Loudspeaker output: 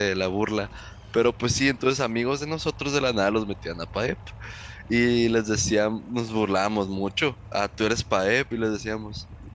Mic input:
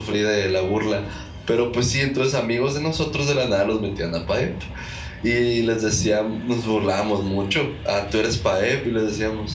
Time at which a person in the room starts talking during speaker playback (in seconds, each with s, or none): none